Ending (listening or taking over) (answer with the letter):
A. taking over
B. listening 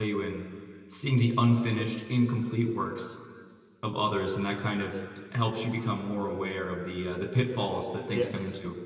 A